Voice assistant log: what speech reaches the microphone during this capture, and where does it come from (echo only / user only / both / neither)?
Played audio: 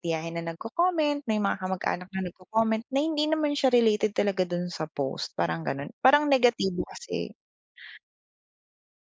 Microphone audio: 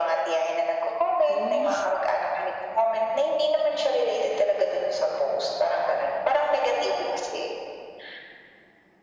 both